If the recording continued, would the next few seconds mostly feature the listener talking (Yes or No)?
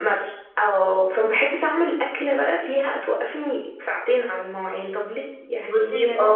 Yes